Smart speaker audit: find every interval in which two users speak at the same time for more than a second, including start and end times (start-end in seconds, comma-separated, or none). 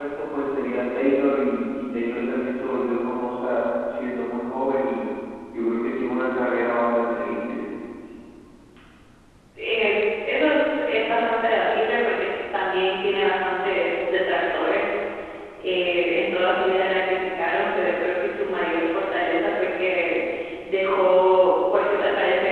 none